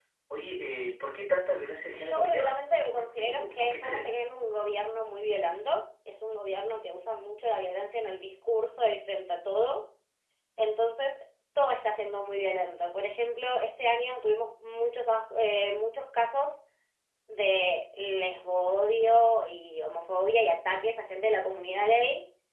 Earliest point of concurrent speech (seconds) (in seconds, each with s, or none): 2.0 s